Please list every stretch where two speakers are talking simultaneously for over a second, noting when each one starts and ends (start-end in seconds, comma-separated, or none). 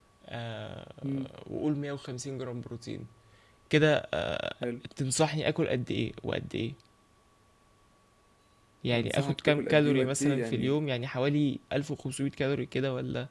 8.9-10.8